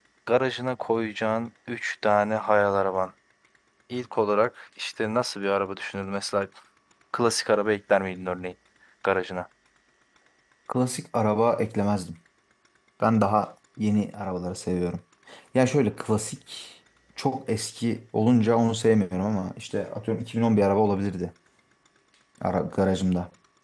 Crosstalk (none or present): none